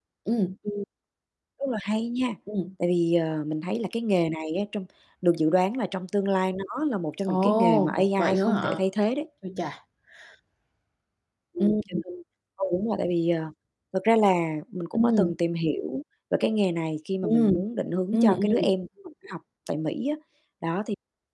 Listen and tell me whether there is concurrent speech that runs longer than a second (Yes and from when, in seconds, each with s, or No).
Yes, from 7.3 s